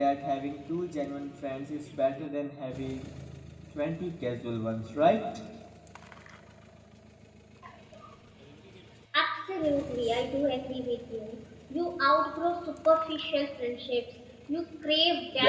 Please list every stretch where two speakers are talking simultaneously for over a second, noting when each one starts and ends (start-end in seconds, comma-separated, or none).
none